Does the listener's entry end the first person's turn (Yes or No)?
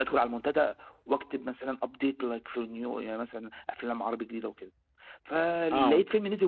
No